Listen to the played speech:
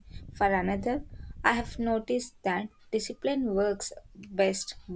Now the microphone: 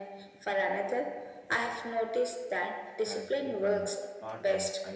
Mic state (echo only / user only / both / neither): both